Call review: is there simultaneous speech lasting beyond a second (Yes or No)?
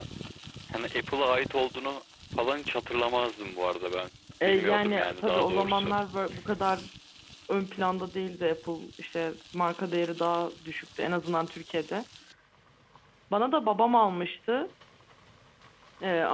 Yes